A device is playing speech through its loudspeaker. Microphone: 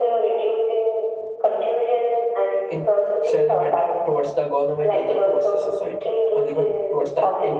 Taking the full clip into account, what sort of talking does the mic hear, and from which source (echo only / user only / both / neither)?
both